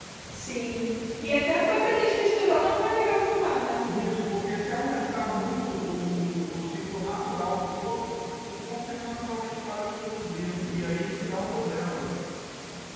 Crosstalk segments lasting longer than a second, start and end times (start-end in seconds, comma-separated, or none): none